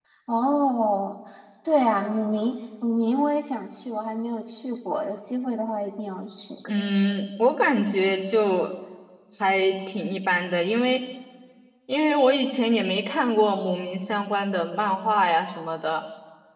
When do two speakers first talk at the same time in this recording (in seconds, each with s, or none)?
none